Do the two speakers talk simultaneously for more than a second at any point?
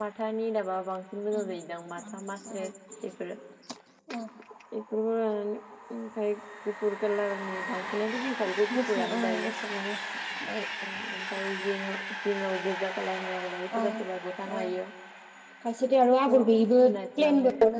Yes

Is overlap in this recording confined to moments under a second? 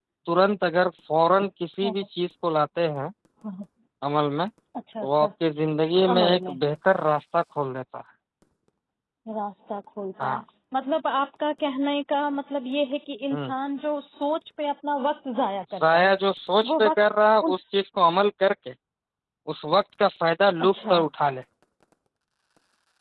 Yes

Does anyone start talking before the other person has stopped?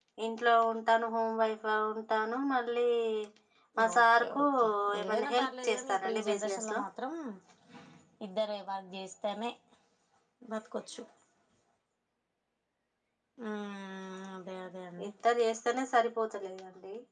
Yes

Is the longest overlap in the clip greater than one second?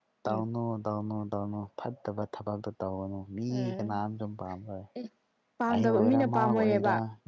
Yes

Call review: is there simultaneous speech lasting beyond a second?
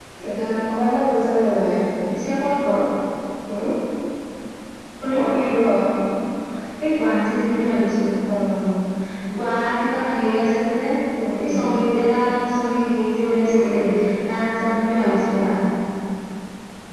No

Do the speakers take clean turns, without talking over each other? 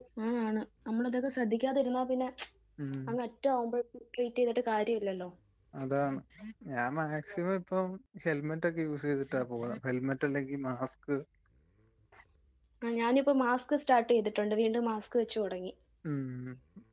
Yes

